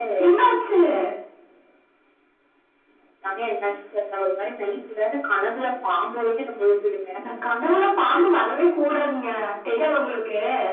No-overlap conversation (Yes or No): Yes